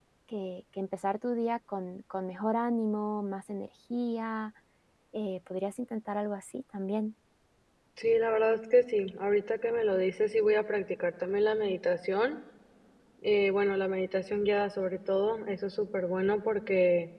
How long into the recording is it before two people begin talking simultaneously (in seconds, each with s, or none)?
none